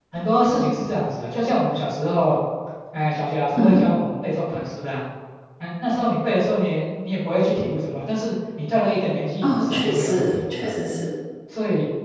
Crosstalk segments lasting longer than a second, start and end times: 9.4-10.7

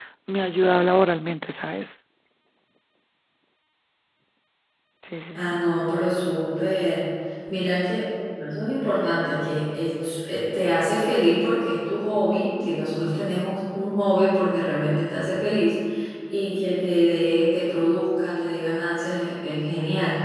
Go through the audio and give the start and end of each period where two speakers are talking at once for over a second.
none

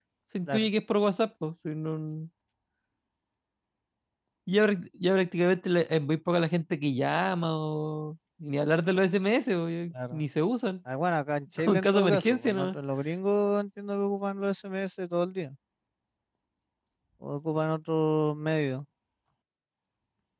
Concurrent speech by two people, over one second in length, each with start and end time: 11.6-12.8

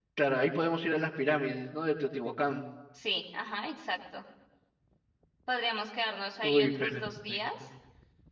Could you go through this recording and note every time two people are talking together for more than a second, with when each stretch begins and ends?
6.4-7.7

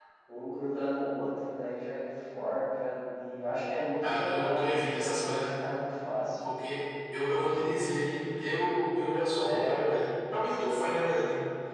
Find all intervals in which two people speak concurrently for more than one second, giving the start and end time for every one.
4.0-5.6

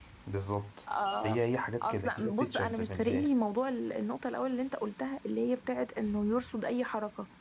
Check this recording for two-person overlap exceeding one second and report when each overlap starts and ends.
1.8-3.3

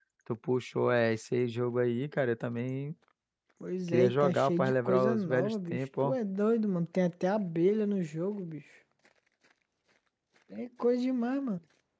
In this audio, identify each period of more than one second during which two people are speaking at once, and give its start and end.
3.9-6.2

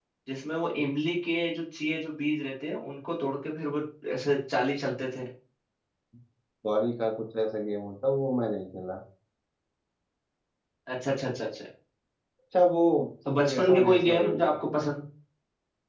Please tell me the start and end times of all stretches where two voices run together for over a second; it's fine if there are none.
13.3-14.6

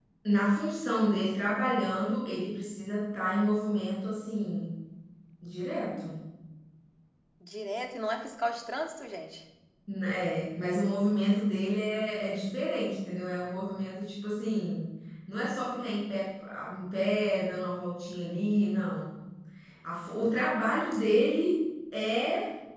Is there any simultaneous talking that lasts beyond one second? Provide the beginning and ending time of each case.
none

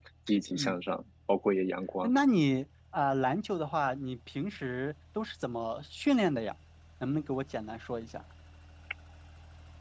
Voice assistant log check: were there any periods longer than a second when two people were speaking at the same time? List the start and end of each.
none

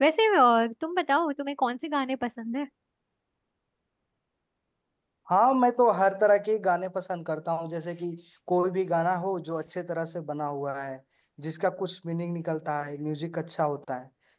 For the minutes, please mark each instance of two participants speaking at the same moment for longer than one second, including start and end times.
none

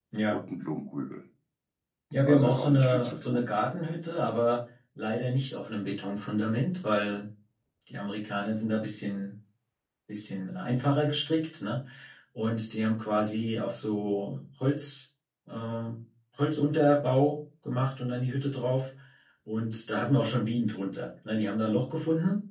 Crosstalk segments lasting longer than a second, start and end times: 2.2-3.4

